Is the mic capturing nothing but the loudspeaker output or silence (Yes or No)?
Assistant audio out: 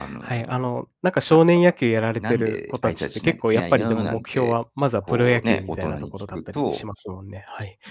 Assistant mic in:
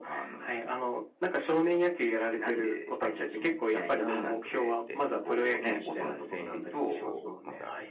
No